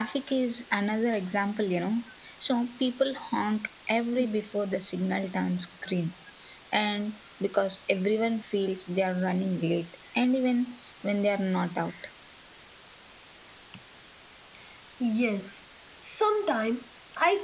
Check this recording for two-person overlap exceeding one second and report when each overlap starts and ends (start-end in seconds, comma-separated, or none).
none